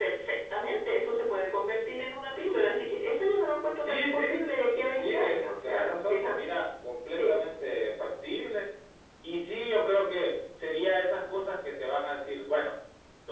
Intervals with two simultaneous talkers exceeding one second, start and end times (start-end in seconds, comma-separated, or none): 5.0-6.5